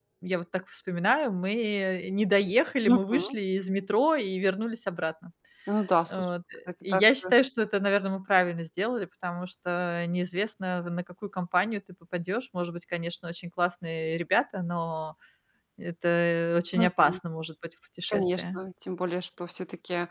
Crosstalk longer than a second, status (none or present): none